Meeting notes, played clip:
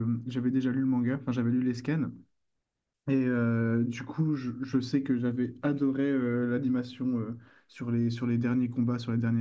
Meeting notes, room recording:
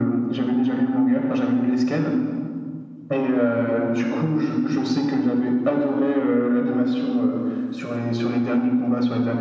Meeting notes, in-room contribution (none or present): none